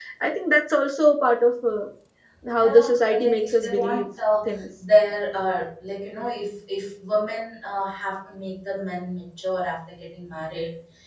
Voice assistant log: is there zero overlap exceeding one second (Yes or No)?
No